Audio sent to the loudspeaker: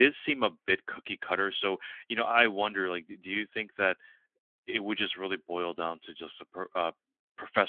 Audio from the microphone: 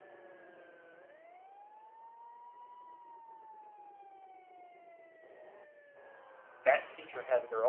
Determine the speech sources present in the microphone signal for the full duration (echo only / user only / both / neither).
user only